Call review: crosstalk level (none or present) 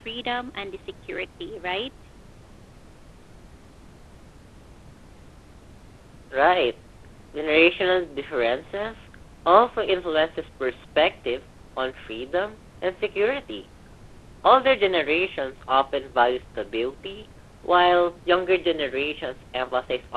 none